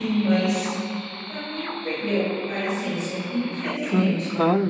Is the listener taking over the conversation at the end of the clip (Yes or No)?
Yes